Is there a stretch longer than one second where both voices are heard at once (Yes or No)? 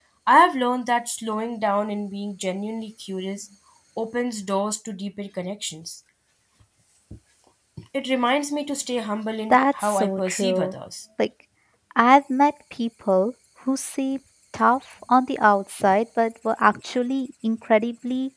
Yes